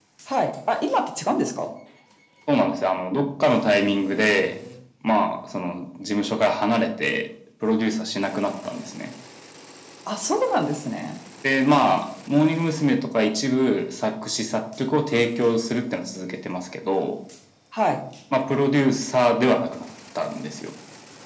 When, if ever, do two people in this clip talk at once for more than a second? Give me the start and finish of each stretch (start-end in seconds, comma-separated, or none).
none